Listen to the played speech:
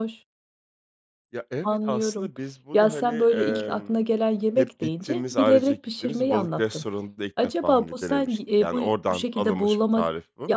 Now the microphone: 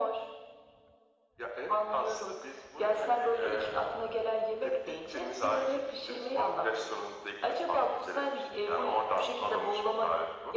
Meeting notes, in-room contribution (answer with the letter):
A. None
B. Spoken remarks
A